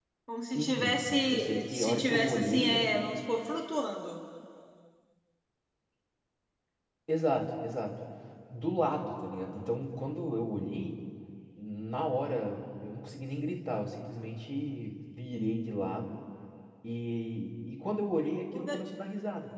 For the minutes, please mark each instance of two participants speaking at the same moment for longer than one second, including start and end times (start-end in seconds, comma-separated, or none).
0.5-2.8